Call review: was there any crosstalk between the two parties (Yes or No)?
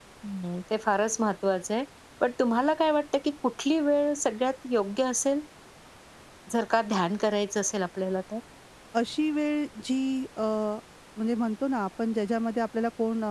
No